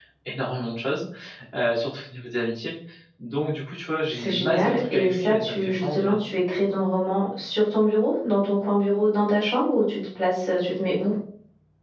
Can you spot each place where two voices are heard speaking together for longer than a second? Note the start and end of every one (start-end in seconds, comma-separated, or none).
4.1-6.2